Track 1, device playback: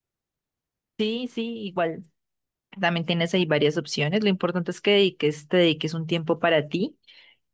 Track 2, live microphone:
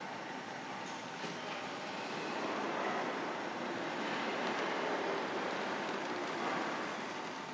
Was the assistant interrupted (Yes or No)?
No